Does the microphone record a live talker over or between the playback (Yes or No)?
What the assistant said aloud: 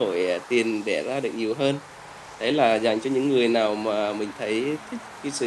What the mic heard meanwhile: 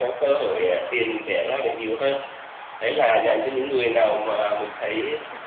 No